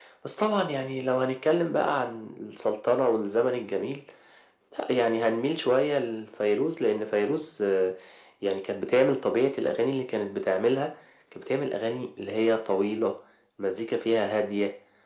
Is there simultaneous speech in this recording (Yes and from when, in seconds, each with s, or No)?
No